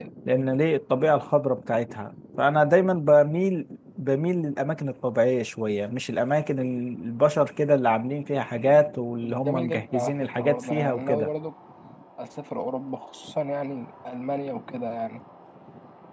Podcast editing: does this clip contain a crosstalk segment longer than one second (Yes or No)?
Yes